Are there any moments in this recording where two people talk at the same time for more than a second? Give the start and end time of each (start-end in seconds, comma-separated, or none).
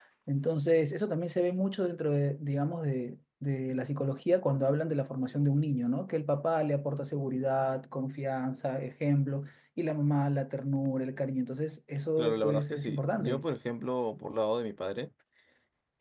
12.2-13.4